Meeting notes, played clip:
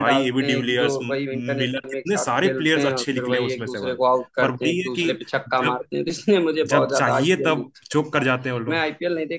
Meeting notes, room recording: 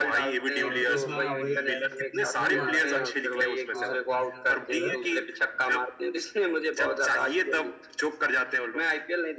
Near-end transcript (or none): और उस हाँ वही ट्रेविस हेड ने इतना मारा था कि जो है फिर भारत फाइनल से जो है